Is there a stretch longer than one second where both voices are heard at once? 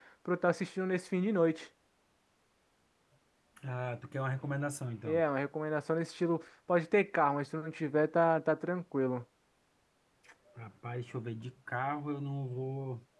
No

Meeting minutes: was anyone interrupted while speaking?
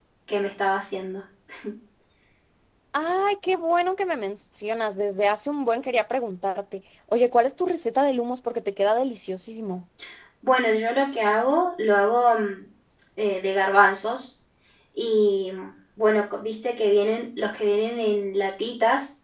No

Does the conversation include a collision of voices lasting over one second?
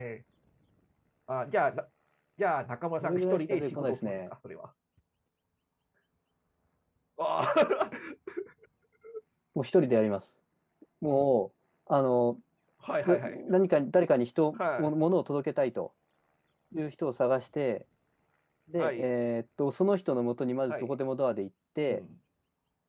Yes, from 3.0 s

